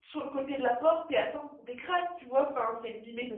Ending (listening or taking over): listening